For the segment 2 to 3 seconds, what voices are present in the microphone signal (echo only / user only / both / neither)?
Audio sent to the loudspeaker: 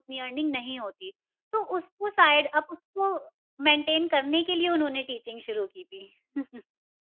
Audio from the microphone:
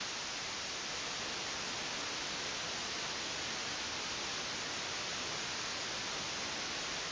neither